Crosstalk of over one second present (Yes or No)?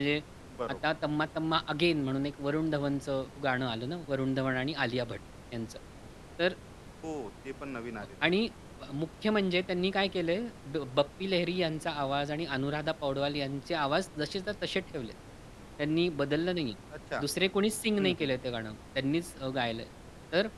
No